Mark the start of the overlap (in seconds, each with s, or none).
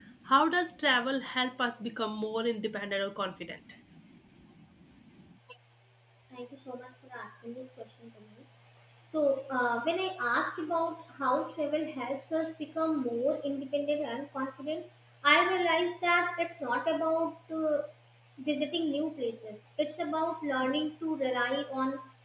none